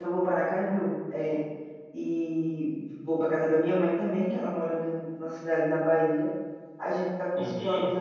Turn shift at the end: No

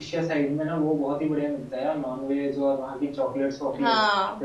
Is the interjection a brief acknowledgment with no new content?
Yes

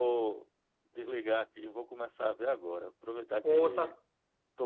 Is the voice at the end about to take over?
No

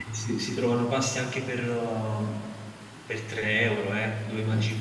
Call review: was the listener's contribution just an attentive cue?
No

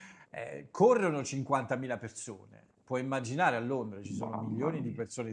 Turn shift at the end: No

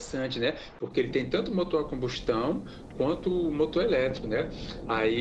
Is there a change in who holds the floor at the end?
No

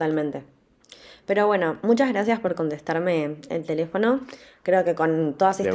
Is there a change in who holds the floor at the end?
No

